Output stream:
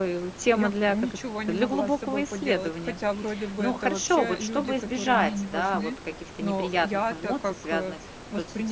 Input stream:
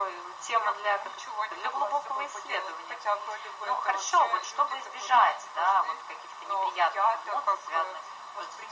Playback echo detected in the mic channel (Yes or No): Yes